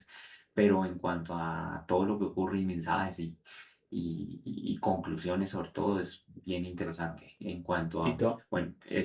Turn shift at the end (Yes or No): No